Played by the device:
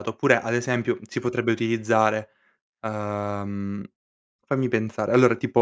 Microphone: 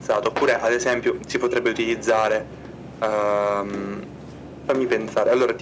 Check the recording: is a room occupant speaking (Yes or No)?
No